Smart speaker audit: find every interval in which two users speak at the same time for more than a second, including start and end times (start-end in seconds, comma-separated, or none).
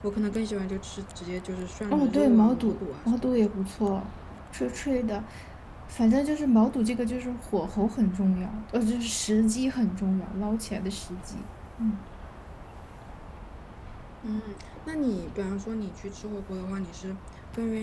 1.9-3.5